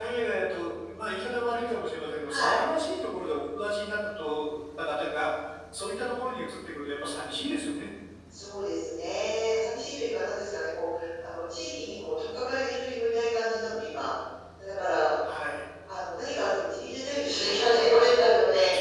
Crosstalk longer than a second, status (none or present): none